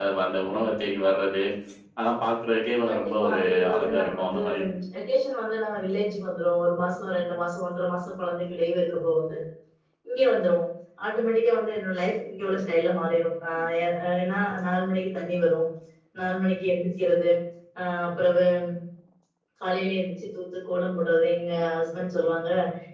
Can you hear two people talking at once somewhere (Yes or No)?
Yes